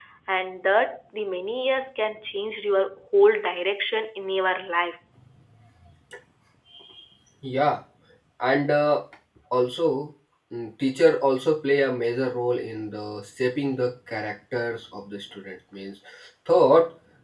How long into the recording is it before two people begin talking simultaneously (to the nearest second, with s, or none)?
none